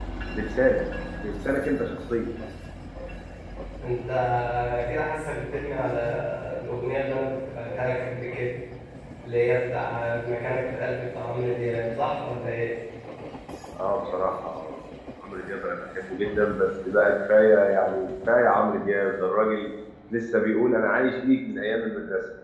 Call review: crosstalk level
none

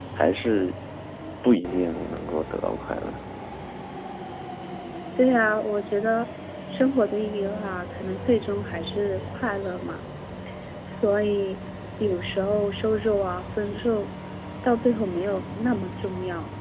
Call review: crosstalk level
none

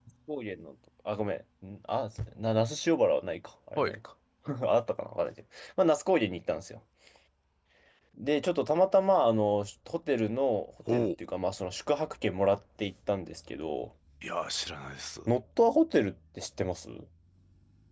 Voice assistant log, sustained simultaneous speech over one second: none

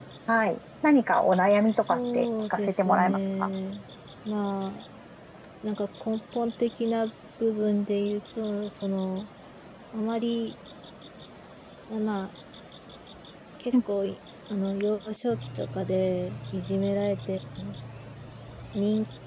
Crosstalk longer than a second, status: present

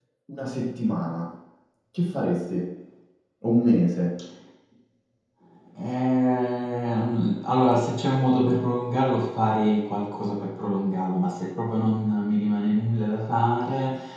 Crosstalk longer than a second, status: none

